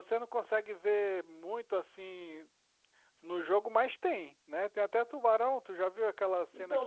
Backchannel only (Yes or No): No